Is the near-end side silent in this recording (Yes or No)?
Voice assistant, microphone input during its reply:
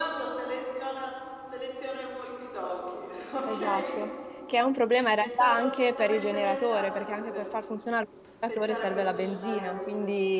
No